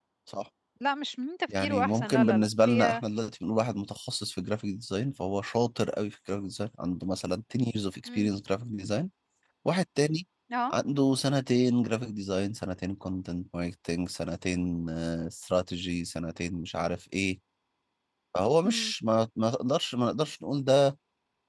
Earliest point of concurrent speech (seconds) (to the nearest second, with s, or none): 2 s